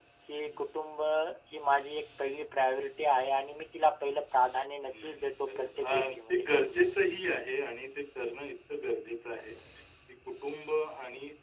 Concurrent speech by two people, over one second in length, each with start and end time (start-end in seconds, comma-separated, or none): 4.9-6.8